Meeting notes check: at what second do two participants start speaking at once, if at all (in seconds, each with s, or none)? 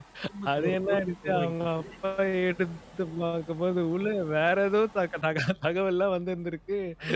0.5 s